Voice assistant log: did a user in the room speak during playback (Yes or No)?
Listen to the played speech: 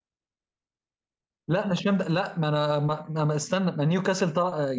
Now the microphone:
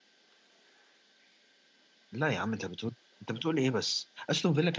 Yes